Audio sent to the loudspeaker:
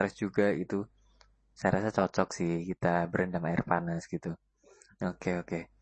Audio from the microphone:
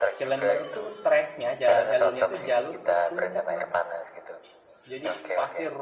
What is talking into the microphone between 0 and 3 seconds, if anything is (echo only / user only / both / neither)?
both